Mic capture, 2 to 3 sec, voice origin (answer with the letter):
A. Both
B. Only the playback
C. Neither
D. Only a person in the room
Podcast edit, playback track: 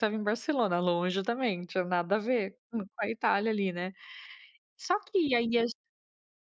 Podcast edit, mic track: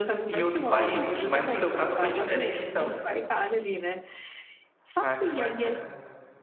A